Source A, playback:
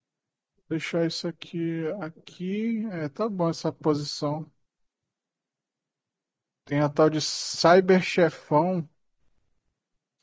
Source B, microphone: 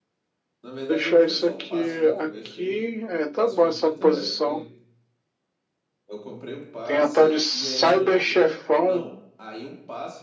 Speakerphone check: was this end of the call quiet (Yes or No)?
No